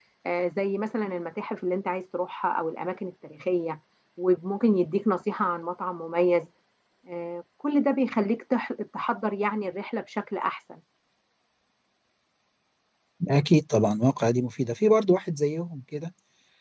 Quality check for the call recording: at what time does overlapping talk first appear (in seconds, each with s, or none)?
none